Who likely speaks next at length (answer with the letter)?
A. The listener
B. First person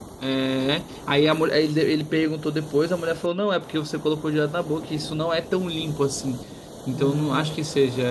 B